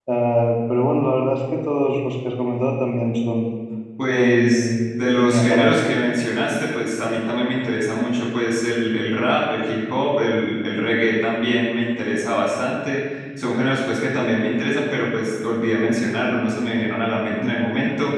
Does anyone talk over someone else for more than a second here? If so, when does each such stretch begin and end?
4.1-5.9

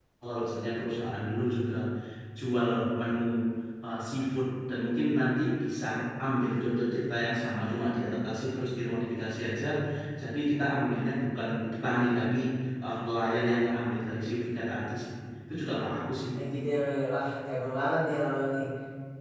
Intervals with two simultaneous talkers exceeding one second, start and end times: none

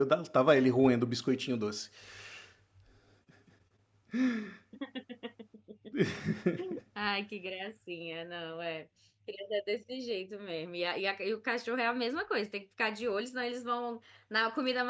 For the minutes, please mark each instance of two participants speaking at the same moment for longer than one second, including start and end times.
none

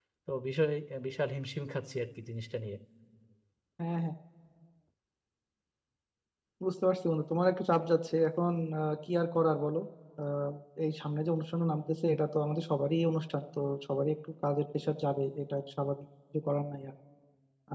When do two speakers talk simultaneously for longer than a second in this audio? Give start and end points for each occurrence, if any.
none

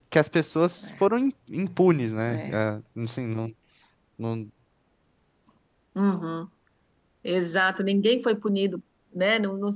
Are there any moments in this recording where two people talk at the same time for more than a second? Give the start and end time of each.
none

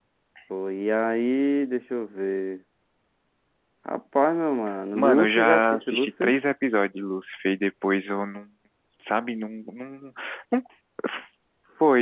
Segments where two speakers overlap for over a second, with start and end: 4.9-6.3

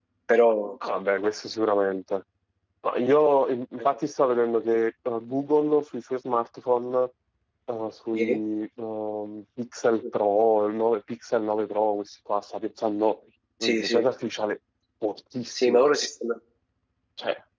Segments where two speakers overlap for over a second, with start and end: none

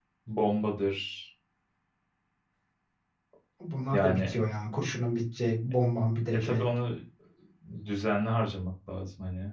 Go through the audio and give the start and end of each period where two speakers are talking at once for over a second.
none

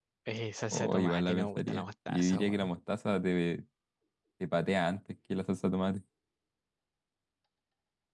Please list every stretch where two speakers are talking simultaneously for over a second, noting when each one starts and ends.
0.7-2.7

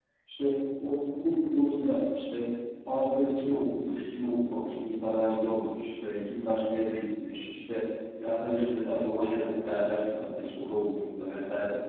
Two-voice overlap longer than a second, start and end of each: none

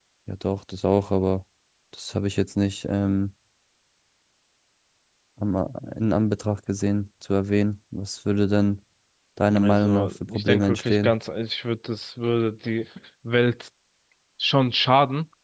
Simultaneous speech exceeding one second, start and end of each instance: 9.6-11.1

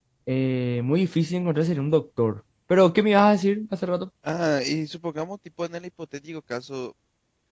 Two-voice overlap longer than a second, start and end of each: none

